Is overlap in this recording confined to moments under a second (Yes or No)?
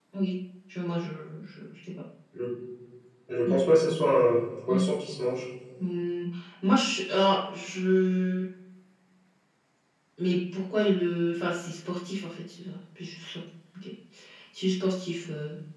Yes